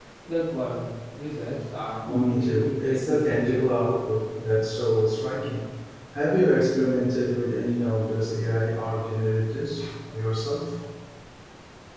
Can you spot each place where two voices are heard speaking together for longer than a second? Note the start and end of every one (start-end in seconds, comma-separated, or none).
2.0-3.6